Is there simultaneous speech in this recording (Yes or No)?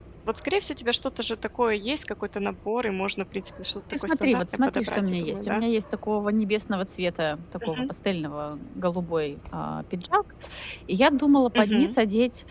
Yes